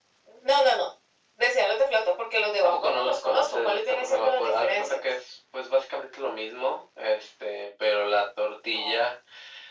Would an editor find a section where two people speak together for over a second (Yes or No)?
Yes